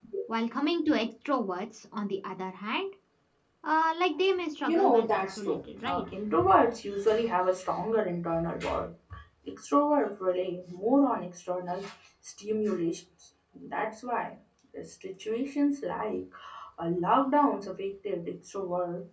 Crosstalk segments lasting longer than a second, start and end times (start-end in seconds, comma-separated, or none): 4.7-6.1